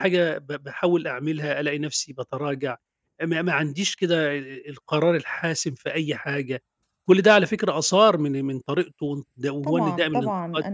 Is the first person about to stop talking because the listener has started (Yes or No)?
Yes